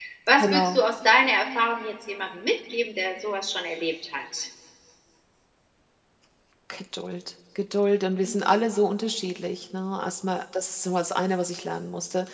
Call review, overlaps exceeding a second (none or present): none